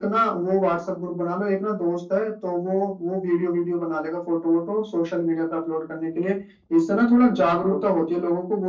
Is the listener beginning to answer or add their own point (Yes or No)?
No